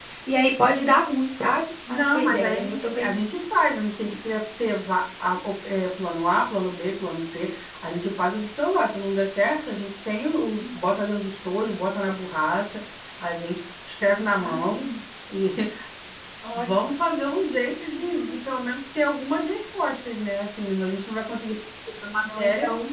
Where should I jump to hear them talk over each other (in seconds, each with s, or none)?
1.9 s